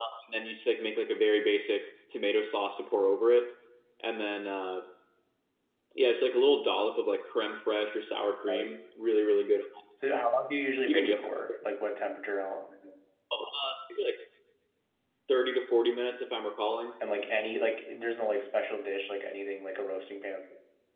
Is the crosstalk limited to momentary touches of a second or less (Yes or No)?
Yes